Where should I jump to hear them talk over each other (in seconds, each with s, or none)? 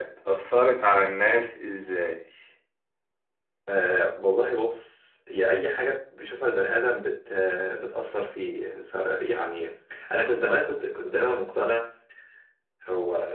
none